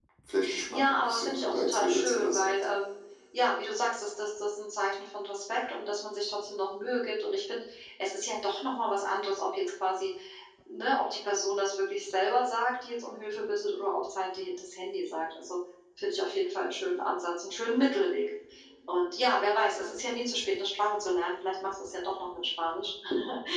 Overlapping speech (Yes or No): Yes